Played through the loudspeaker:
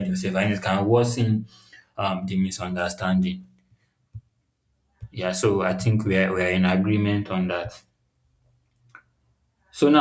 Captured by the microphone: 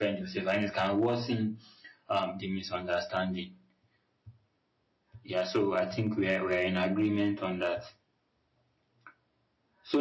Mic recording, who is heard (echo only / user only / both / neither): echo only